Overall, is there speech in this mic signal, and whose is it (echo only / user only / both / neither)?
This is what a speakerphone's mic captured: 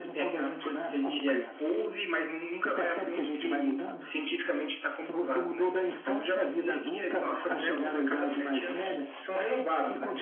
echo only